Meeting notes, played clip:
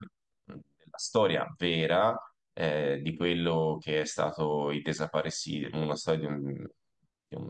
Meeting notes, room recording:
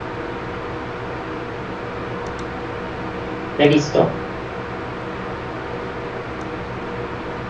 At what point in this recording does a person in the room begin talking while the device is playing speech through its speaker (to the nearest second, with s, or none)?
4 s